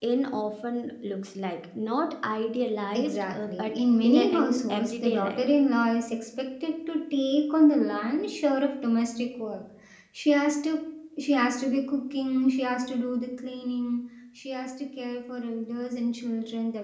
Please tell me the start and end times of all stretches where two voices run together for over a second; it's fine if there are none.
2.9-5.4

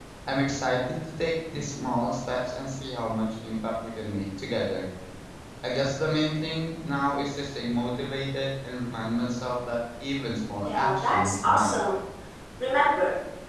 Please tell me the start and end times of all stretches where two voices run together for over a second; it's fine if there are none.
10.7-11.9

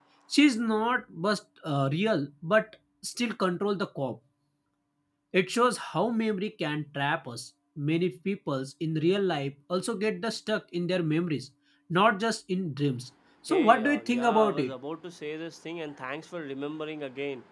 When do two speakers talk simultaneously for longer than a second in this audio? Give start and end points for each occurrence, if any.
13.5-14.7

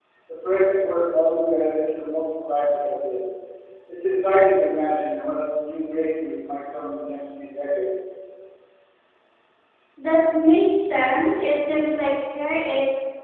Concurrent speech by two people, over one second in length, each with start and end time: none

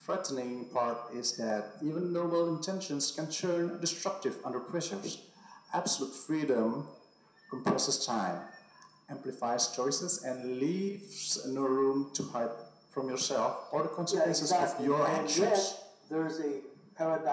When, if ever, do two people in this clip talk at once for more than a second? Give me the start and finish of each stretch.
14.1-15.7

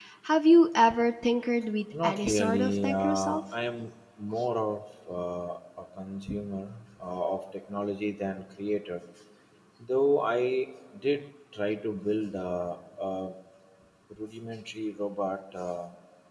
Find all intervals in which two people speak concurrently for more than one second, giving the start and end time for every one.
2.0-3.4

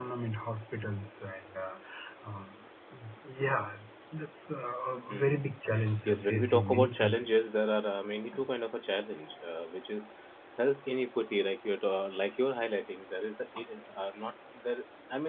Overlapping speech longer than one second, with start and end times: 6.0-7.5

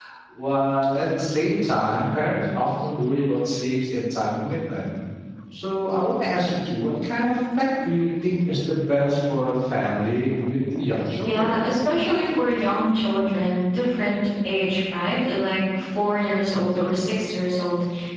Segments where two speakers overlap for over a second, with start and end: none

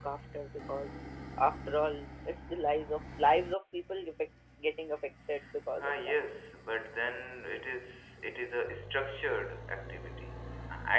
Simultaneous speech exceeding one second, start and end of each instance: none

